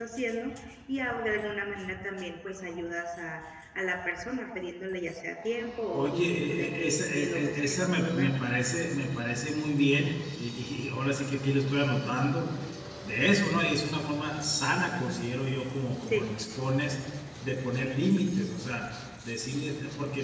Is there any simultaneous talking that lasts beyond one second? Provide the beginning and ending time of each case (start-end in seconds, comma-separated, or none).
5.9-8.3